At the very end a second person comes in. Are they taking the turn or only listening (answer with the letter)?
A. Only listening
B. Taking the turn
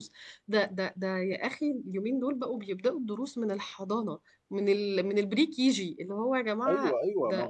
B